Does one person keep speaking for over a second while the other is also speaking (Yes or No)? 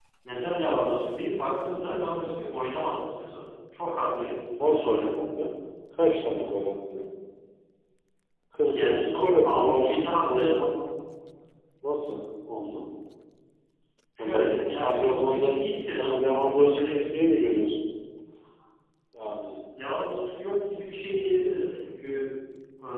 Yes